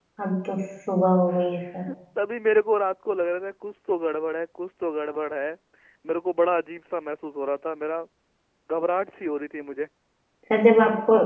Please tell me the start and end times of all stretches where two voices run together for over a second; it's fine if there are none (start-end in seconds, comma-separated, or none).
none